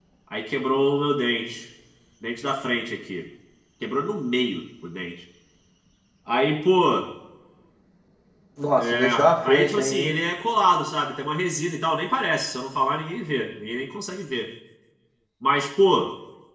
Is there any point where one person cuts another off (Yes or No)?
Yes